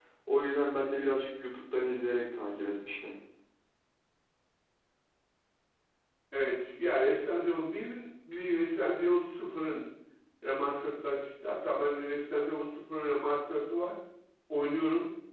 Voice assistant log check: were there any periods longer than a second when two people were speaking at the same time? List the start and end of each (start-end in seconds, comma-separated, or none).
none